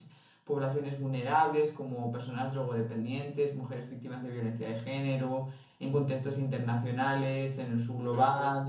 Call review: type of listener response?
listening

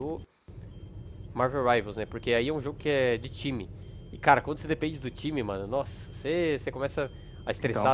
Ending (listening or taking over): listening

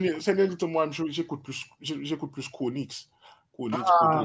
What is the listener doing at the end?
taking over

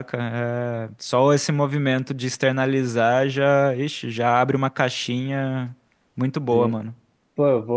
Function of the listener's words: taking over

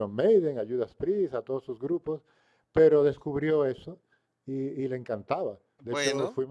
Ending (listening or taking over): listening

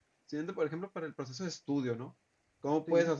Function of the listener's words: listening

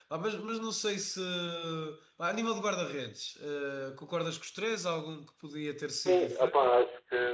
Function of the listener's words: taking over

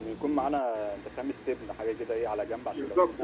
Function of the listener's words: taking over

